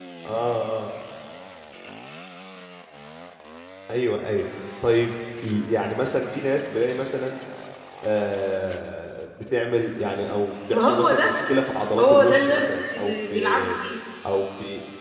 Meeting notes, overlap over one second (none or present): present